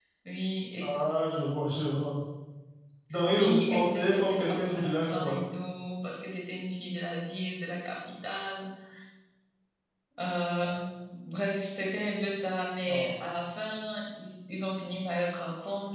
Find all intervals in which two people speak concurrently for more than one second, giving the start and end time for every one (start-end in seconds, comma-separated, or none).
3.3-5.4